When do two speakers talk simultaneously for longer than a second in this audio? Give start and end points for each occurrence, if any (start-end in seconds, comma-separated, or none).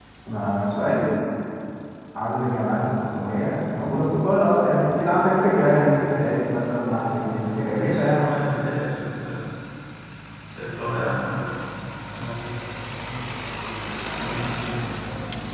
7.0-8.6